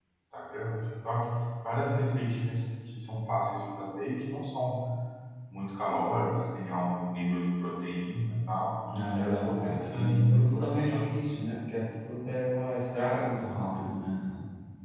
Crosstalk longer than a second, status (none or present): present